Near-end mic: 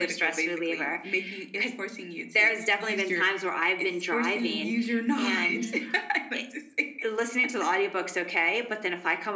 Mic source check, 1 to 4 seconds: echo only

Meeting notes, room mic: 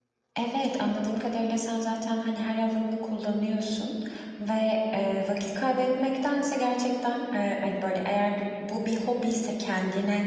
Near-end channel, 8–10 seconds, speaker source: user only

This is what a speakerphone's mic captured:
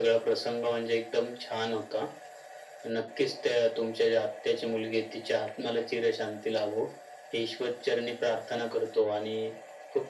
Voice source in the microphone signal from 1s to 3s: echo only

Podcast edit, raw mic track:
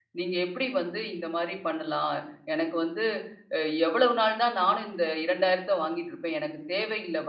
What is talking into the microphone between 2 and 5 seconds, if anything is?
user only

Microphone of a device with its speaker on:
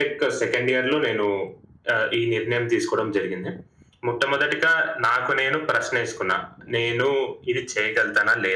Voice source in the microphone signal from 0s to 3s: echo only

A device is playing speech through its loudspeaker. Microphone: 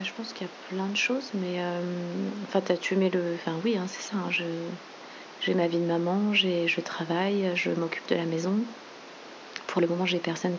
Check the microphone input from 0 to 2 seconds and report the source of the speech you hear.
user only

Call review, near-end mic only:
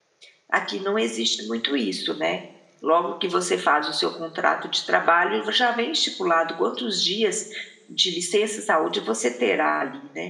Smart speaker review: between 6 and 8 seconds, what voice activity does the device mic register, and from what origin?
user only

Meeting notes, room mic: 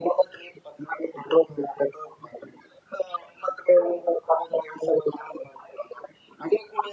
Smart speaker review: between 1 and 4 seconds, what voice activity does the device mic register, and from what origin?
echo only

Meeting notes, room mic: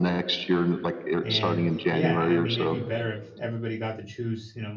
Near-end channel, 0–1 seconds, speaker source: echo only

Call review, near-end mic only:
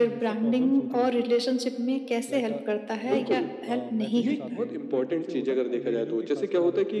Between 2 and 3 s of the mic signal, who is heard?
both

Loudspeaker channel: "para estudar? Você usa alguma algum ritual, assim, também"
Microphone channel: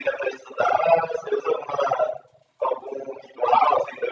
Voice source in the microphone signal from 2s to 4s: echo only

